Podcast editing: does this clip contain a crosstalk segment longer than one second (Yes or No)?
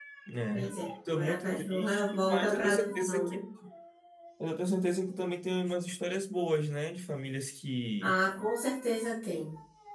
Yes